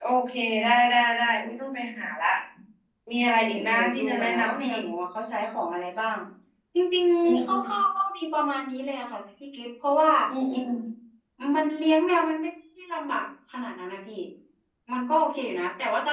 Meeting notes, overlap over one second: present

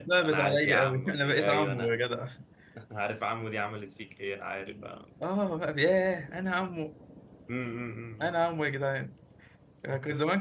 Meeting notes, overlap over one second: present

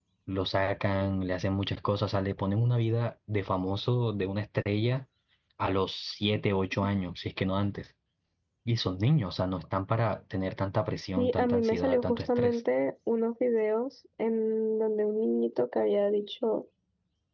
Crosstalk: present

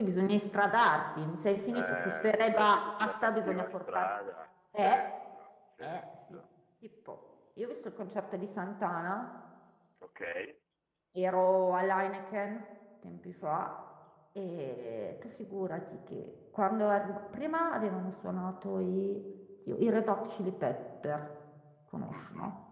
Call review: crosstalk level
present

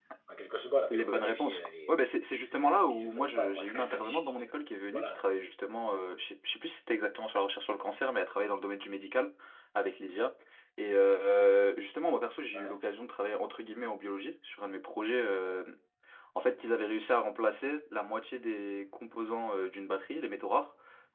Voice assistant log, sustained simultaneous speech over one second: present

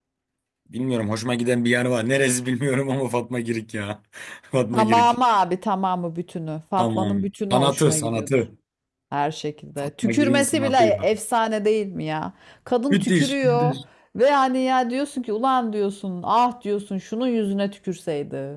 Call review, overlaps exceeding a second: present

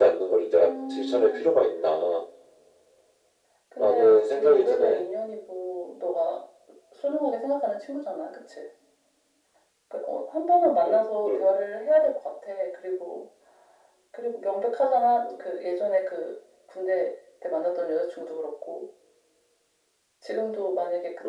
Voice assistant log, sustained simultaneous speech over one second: present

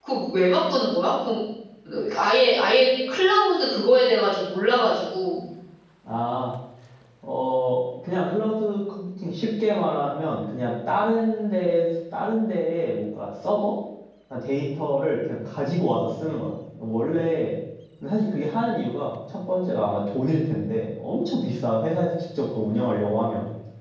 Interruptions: none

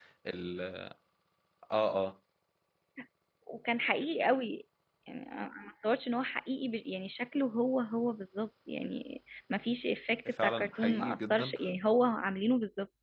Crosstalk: present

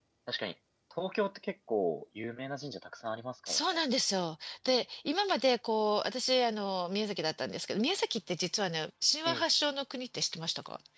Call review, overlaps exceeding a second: none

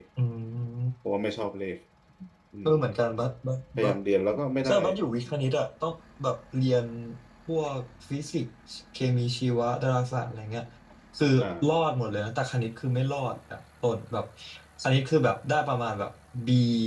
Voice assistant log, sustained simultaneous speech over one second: none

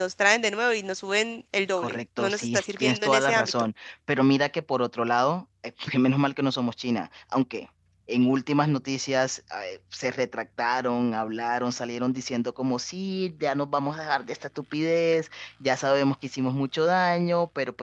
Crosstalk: present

